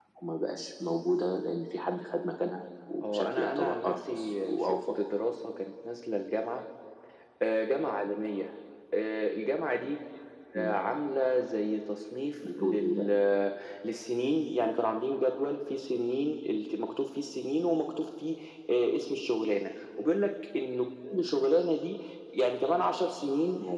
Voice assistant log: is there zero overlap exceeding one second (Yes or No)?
No